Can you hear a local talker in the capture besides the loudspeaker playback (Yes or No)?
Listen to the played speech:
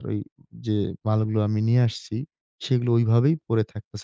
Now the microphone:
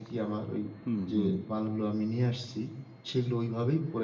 Yes